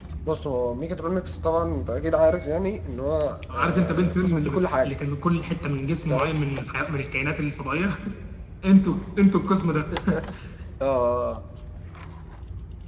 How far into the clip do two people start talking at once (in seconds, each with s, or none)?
3.5 s